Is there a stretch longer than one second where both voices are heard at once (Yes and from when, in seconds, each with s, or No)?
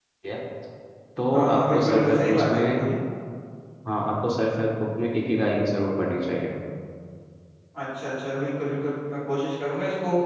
Yes, from 1.3 s